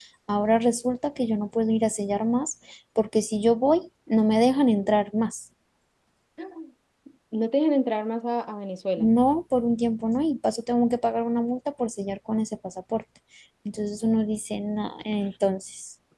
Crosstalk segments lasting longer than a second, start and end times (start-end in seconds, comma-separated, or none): none